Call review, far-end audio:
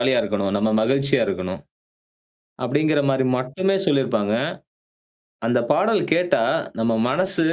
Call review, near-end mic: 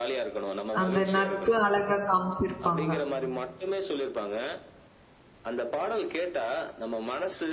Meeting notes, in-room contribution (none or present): present